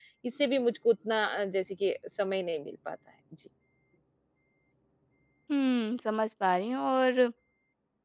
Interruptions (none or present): none